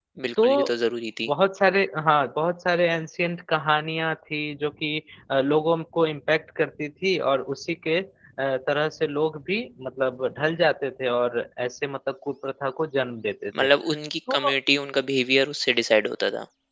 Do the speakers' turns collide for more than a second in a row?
No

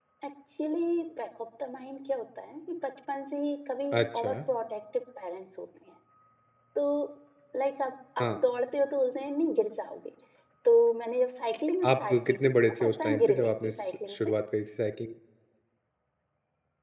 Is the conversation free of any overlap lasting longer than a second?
No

